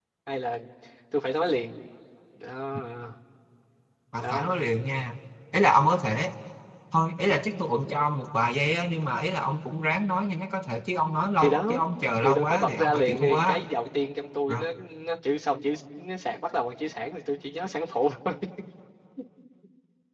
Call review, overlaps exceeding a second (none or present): present